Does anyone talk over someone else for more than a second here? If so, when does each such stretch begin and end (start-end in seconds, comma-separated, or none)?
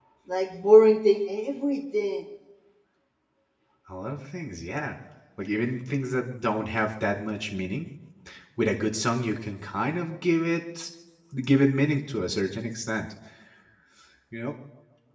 none